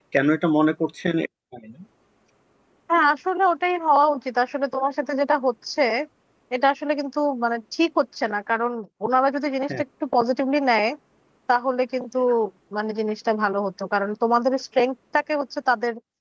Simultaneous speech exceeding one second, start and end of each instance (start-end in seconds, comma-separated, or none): none